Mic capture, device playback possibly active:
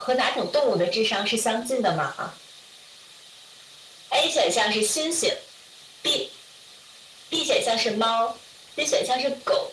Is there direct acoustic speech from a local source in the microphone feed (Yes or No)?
No